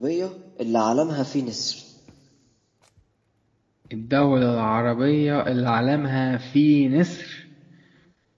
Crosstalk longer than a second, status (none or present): none